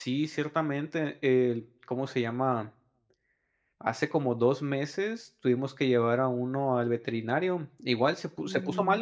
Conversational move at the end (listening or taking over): listening